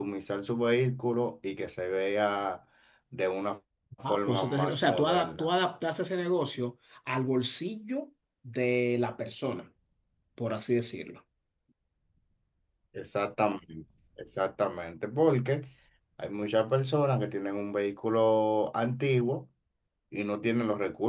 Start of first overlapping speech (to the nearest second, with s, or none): 4 s